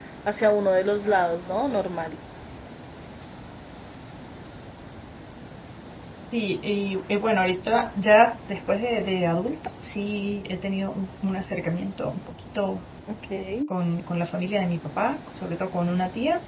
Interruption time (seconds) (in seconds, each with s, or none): none